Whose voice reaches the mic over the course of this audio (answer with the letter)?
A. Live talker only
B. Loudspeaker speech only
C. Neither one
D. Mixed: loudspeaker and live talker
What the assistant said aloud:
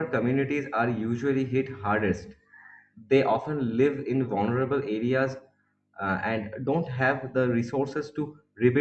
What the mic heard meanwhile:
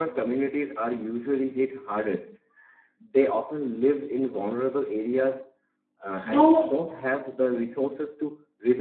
D